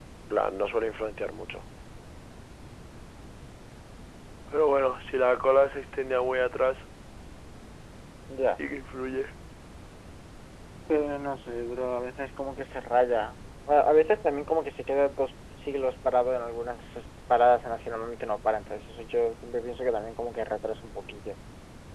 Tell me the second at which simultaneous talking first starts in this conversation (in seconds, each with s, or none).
none